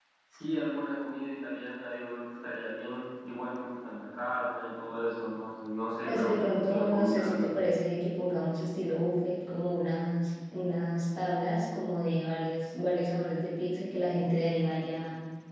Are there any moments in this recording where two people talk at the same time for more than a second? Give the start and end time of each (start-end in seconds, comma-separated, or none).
6.1-7.5